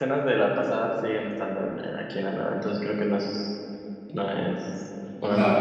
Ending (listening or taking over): listening